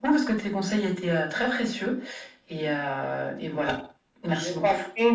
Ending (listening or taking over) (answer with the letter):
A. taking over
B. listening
A